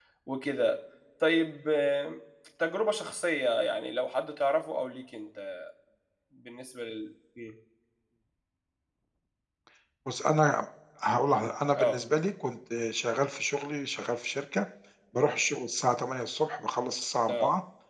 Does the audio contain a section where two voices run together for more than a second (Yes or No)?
No